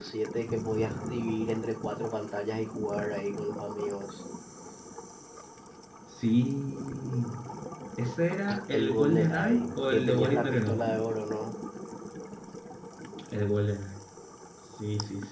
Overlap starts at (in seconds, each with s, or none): 8.7 s